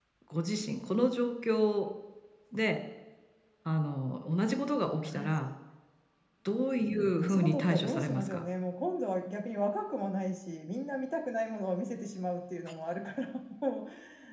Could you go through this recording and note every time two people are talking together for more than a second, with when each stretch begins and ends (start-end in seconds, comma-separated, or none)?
7.2-8.4